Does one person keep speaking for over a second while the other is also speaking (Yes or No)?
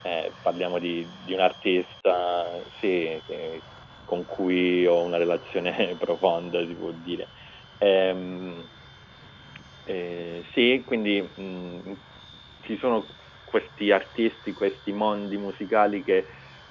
No